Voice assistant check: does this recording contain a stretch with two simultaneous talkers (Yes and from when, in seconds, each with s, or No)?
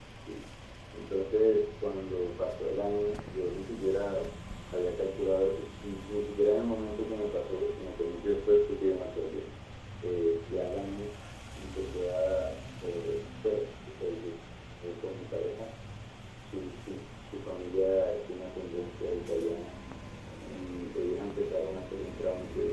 No